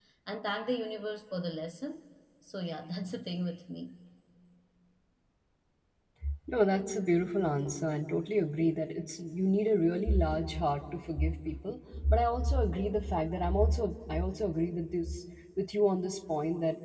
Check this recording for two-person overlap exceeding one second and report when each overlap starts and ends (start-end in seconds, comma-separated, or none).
none